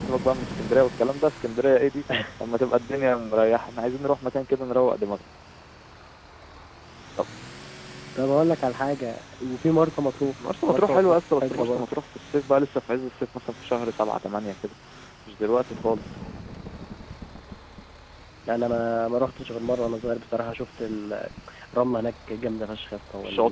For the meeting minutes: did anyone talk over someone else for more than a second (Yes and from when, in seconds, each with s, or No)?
Yes, from 10.7 s